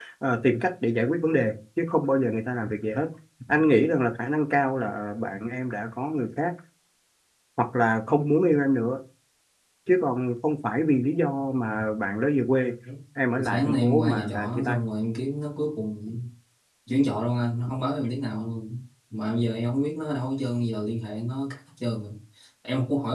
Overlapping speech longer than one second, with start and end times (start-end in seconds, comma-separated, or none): 13.4-14.8